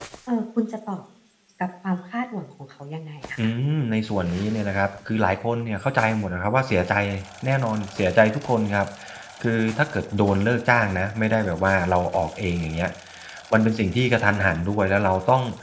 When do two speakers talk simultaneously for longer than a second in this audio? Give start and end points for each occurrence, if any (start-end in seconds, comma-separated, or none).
none